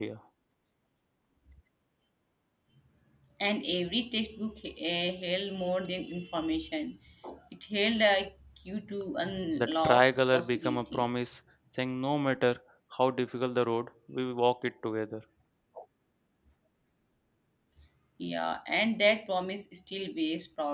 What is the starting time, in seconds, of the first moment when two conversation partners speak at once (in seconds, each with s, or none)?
9.6 s